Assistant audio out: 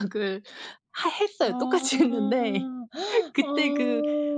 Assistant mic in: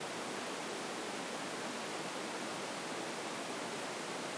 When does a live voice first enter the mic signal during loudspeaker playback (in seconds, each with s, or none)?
none